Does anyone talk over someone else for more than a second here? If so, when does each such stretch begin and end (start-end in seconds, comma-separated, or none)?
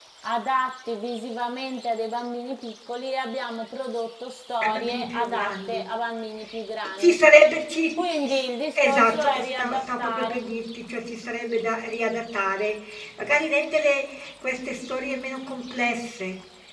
4.6-5.8, 8.8-10.4